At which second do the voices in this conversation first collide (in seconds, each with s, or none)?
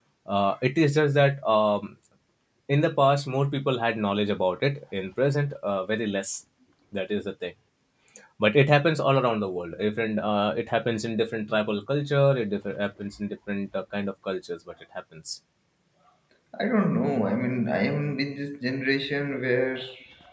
none